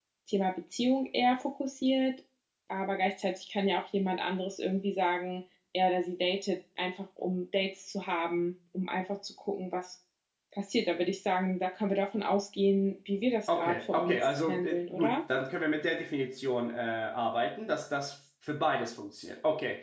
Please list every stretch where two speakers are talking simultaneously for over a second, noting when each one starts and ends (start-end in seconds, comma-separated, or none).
13.5-15.2